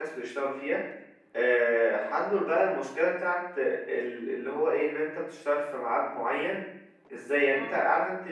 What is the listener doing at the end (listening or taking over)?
listening